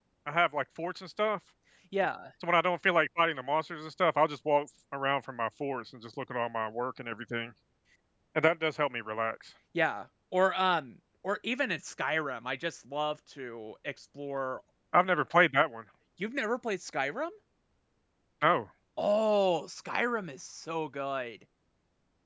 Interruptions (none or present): none